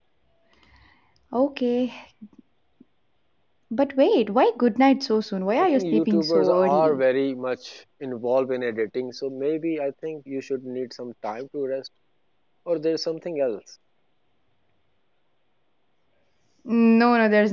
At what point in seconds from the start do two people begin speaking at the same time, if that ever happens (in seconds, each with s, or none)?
5.6 s